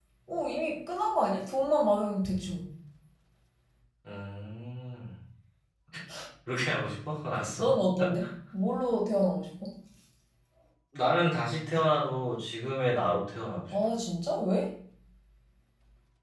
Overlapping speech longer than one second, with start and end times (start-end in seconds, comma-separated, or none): none